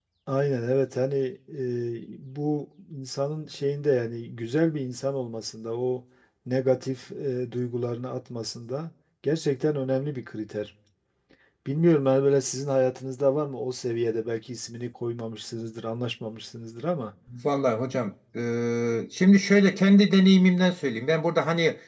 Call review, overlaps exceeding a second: none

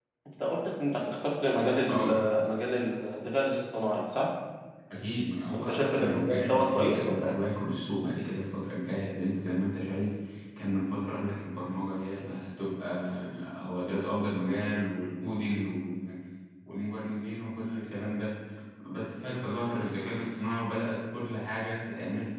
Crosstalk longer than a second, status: present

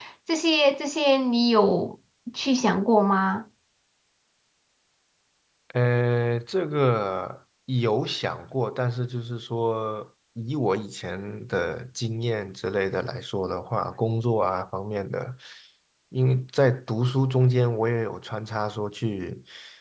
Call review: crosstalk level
none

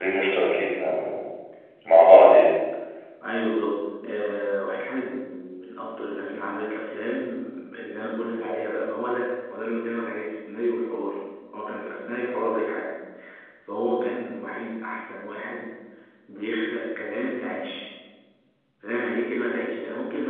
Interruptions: none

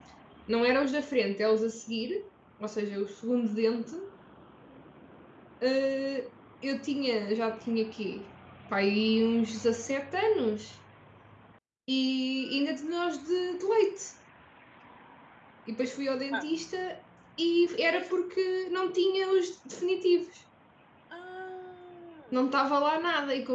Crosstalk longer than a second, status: none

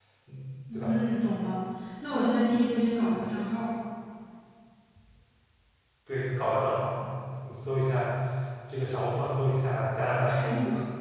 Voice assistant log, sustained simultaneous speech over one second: none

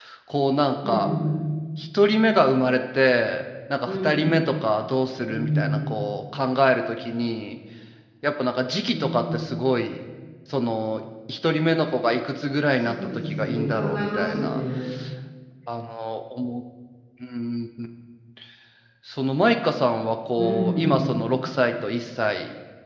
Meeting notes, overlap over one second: present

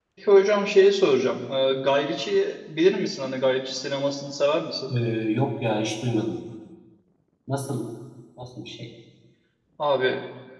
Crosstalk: none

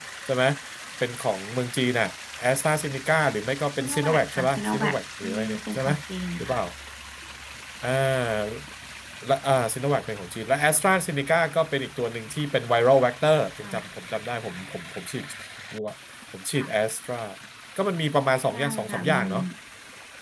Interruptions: present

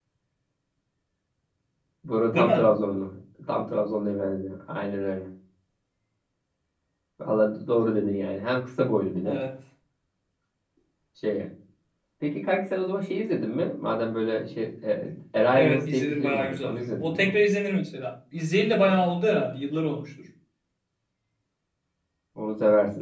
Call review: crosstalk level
present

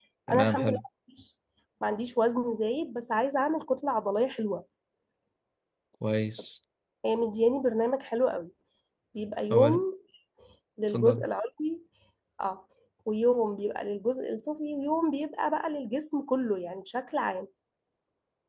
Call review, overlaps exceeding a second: none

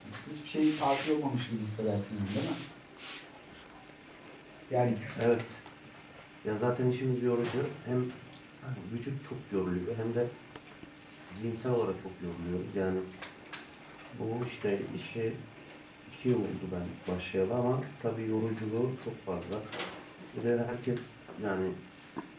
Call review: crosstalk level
none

